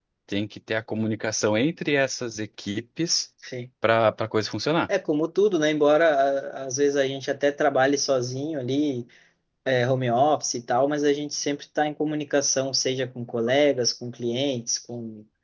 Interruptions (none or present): none